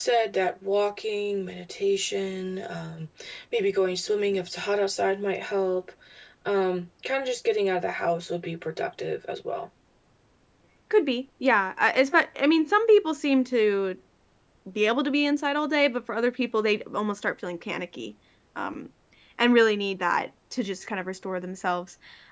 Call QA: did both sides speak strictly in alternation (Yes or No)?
Yes